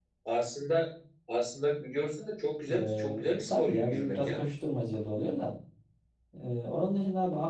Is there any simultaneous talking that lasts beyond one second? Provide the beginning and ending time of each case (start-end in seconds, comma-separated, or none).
2.7-4.4